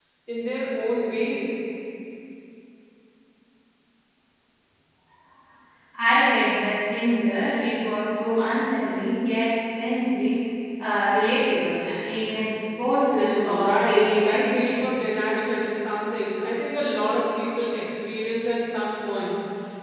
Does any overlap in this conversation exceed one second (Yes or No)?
Yes